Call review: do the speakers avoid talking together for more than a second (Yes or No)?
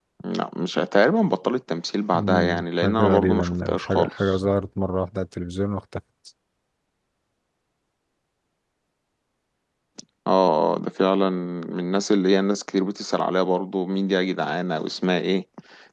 No